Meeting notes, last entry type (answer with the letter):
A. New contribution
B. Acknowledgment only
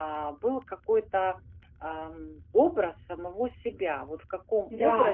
B